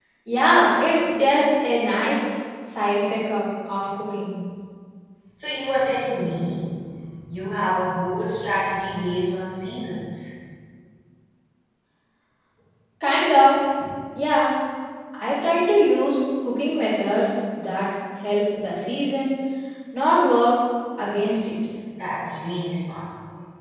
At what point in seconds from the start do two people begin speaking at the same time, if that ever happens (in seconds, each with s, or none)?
none